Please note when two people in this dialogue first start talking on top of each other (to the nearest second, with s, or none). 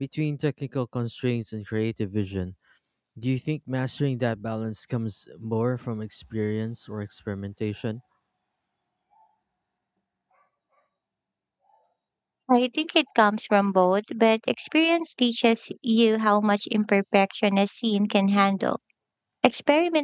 none